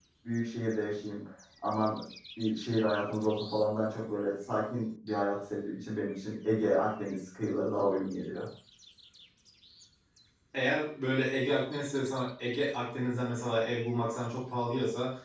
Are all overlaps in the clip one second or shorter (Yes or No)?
Yes